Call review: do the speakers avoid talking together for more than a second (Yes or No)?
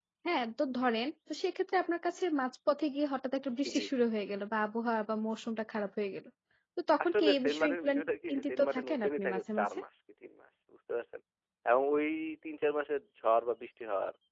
No